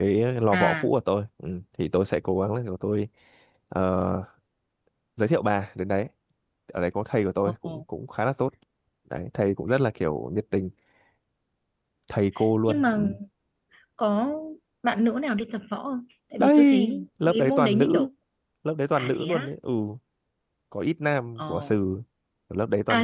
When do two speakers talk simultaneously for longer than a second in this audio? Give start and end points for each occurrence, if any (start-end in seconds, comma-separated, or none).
16.4-18.1